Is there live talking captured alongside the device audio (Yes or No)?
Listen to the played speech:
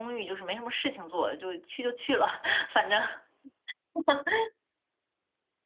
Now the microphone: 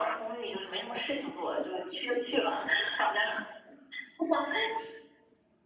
No